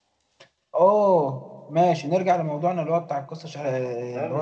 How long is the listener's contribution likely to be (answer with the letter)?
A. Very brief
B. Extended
B